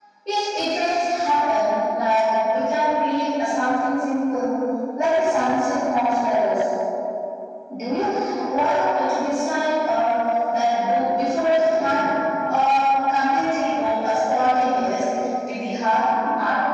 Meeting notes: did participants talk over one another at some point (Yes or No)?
No